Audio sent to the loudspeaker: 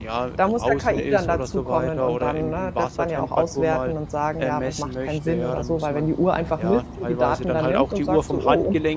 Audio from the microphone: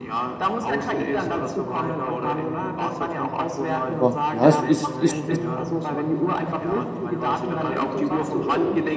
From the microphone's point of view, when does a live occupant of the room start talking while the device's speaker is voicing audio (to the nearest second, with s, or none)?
4 s